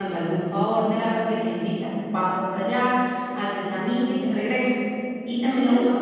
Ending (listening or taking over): listening